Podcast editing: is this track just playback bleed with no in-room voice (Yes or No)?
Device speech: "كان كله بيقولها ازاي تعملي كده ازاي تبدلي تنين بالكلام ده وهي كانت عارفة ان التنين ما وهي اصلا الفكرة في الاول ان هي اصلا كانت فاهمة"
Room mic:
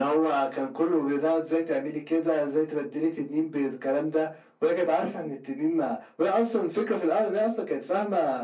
Yes